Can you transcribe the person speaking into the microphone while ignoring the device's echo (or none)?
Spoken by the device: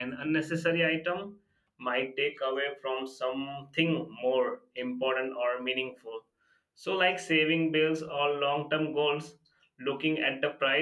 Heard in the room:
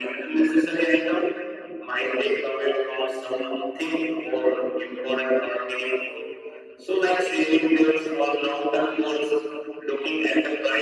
none